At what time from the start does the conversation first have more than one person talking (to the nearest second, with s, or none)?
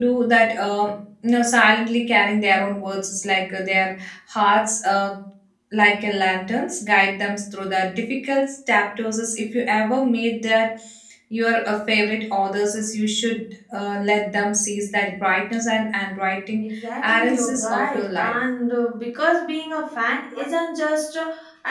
17 s